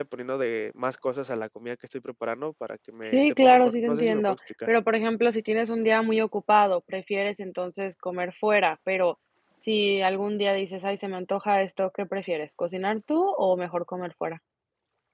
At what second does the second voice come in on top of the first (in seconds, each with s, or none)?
3.0 s